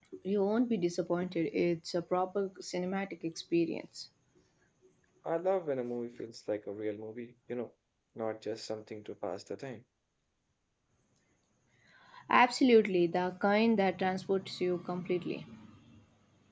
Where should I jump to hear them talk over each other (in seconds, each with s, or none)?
none